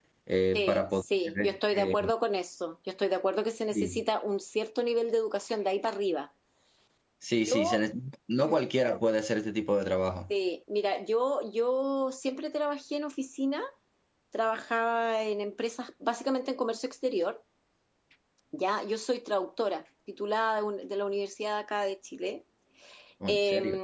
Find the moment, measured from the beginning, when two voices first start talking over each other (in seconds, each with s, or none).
0.5 s